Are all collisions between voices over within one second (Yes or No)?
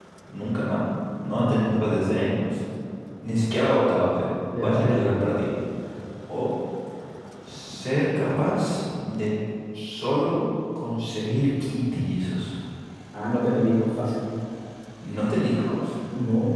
Yes